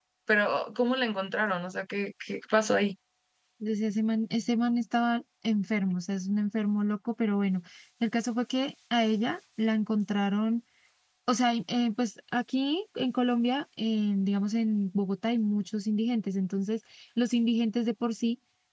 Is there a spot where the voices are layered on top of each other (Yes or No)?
No